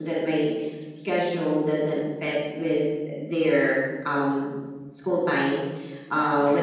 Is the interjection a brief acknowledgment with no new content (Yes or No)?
Yes